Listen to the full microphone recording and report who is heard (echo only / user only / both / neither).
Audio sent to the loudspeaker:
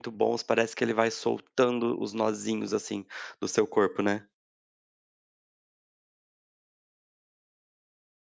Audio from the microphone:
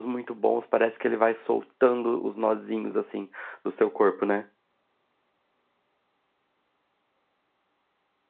echo only